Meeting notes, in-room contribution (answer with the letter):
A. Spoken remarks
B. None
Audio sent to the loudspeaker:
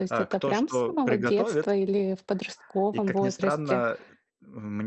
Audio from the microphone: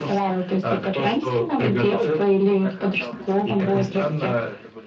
A